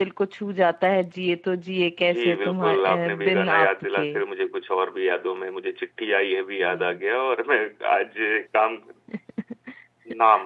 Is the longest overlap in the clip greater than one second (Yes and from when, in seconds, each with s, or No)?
Yes, from 2.1 s